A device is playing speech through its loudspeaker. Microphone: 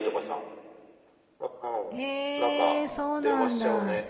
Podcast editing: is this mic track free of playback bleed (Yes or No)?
No